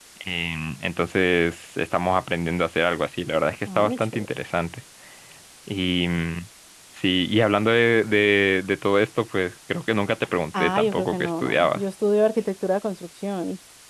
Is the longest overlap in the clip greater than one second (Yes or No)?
Yes